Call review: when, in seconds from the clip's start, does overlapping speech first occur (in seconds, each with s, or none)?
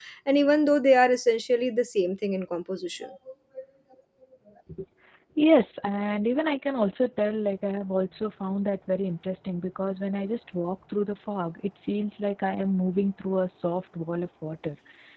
none